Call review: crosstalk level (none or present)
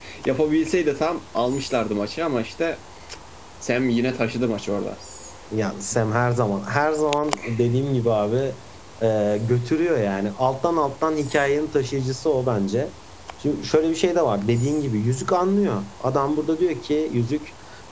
none